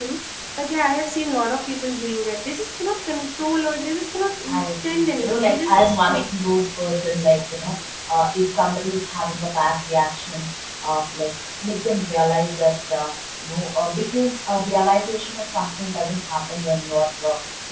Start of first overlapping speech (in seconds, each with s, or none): 4.4 s